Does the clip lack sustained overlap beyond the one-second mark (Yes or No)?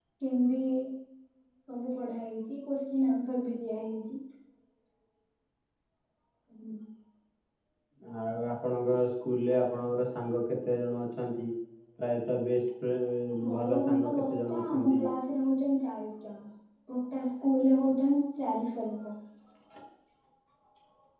No